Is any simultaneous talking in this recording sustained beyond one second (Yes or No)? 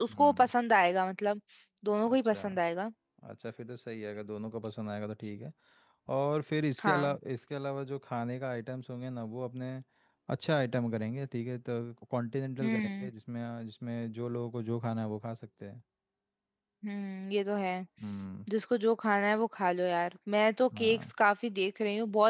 No